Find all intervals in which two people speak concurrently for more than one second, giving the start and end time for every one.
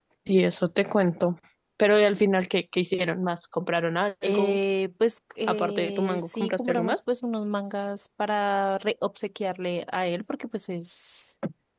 5.5-7.0

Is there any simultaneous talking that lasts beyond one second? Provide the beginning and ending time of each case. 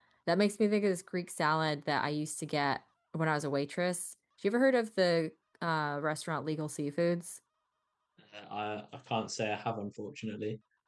none

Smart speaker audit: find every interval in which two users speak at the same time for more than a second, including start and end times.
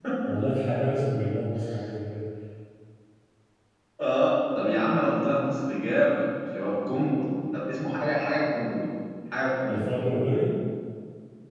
none

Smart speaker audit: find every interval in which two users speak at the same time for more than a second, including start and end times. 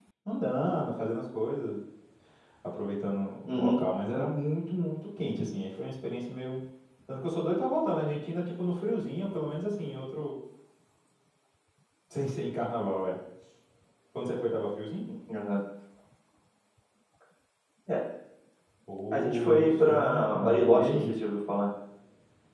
19.1-21.1

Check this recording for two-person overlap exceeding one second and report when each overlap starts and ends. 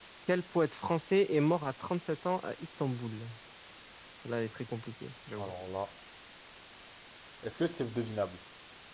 none

